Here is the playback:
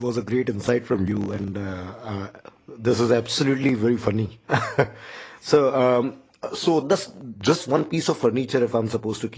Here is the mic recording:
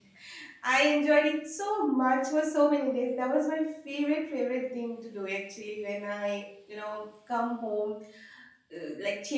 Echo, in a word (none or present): none